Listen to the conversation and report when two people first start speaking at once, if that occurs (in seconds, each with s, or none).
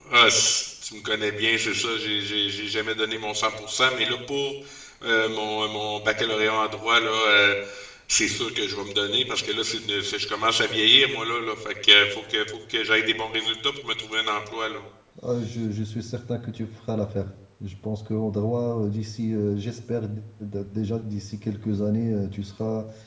none